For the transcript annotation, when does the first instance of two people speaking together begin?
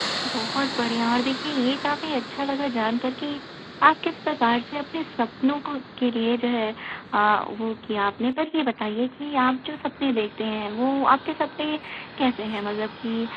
none

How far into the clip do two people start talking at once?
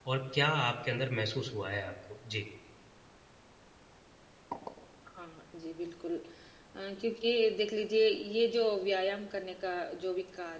none

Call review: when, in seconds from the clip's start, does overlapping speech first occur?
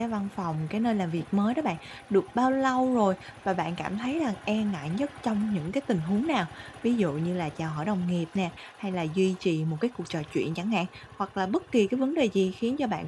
none

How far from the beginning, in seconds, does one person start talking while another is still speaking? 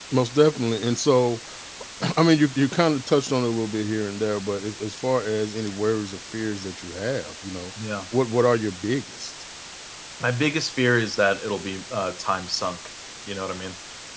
none

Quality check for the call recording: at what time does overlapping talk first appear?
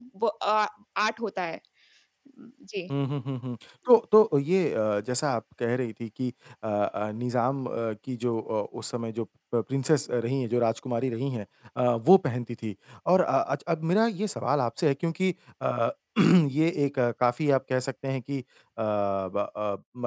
none

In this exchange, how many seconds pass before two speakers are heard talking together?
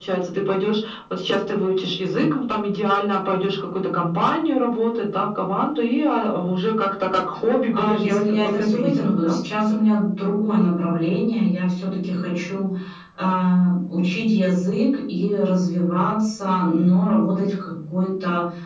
7.7 s

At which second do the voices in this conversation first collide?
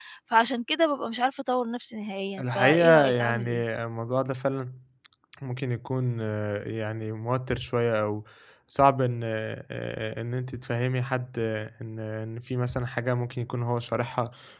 2.4 s

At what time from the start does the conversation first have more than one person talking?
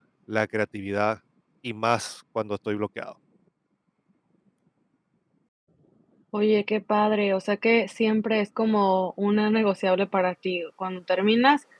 none

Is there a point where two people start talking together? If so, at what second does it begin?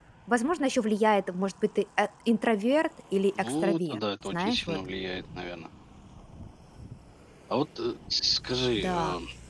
3.4 s

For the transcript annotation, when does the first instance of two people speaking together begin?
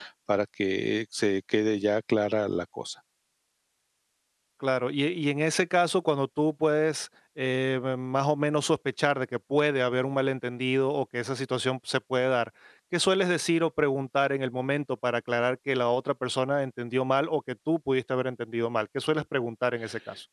none

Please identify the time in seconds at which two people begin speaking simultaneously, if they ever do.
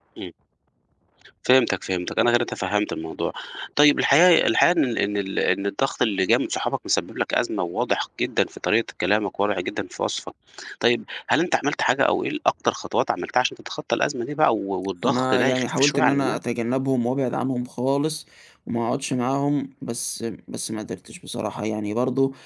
15.0 s

